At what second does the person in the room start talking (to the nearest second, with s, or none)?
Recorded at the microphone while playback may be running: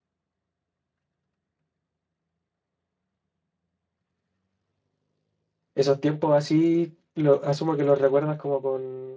6 s